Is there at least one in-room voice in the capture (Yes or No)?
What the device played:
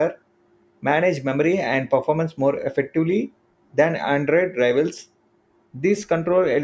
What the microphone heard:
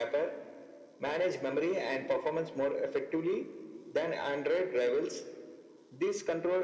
No